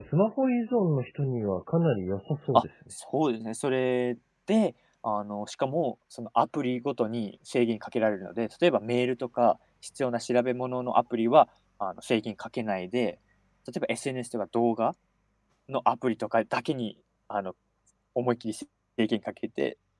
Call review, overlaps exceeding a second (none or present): none